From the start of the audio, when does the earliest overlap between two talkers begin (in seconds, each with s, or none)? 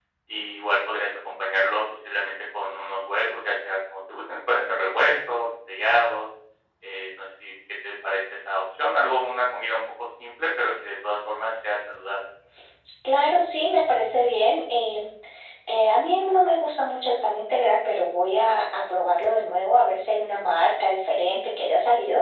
none